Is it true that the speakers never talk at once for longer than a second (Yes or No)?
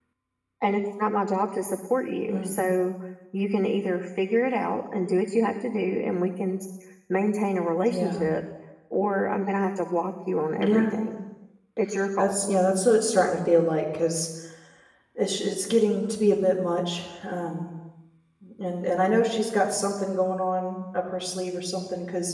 Yes